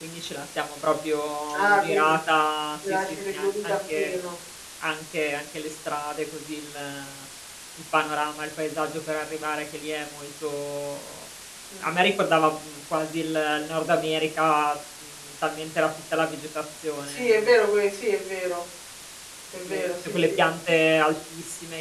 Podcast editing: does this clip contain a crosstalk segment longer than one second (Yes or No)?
Yes